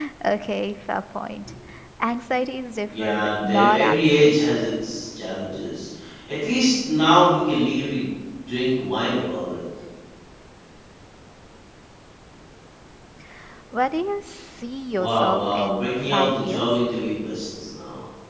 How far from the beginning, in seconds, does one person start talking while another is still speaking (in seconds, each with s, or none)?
2.9 s